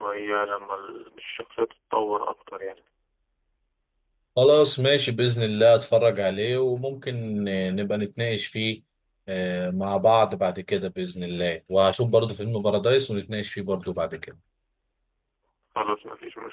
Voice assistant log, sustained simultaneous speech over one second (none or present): none